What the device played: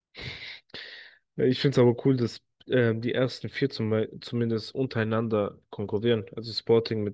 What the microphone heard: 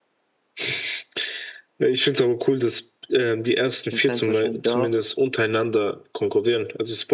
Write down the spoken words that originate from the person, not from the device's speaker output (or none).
Den kennst du wahrscheinlich auch.